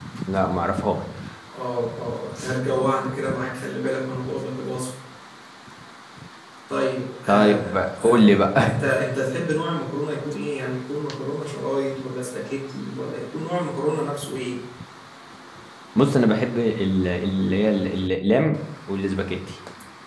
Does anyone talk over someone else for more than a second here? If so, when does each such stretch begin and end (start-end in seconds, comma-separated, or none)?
7.3-8.8